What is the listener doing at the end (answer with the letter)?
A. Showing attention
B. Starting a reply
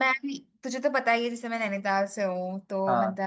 A